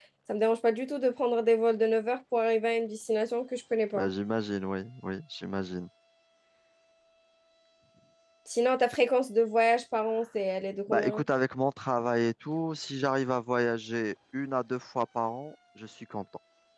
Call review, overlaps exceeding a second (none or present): none